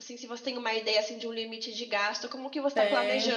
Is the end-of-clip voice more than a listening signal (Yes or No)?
Yes